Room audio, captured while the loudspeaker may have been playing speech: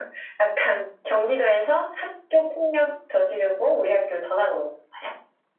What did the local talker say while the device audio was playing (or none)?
none